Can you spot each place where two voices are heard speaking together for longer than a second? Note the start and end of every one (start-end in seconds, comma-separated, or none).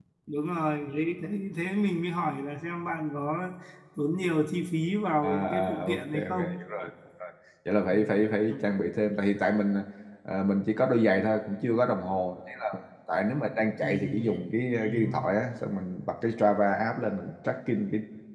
5.2-6.6